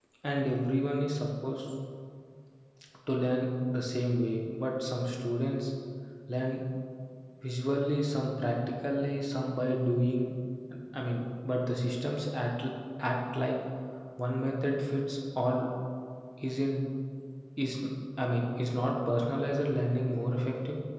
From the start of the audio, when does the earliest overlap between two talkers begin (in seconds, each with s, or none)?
none